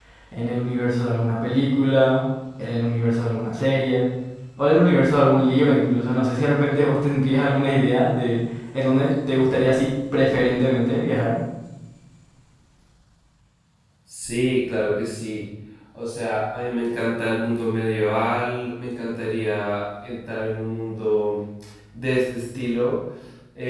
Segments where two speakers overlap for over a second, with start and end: none

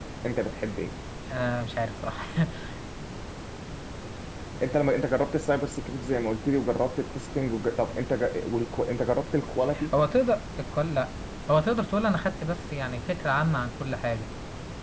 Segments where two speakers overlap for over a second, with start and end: none

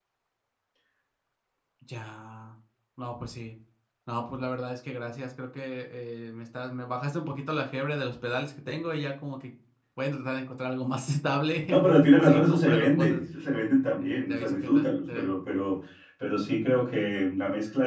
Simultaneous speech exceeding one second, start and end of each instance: 11.7-13.2, 14.0-15.3

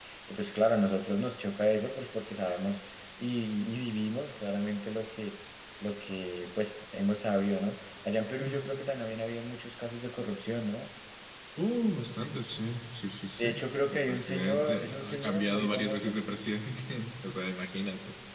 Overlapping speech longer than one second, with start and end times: 13.9-16.1

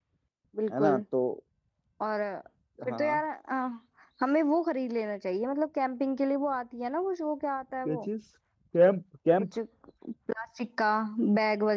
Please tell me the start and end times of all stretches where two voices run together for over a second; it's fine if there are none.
none

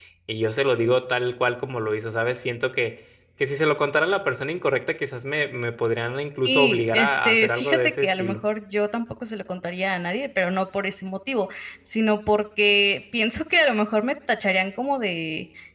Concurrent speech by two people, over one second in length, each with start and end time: 6.4-8.4

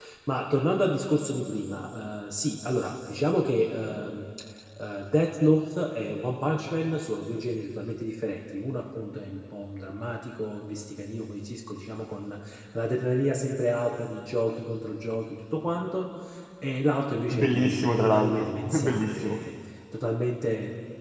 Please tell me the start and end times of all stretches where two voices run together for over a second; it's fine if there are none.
17.3-19.4

